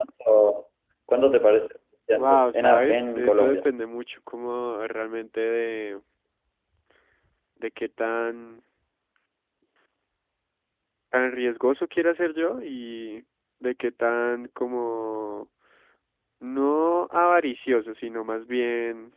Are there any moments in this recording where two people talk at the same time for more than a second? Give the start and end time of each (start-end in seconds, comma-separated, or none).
2.1-3.6